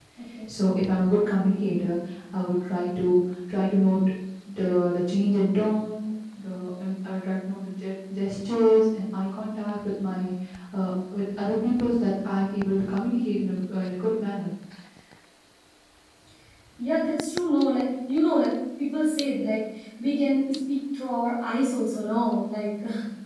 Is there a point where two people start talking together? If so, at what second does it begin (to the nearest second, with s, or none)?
none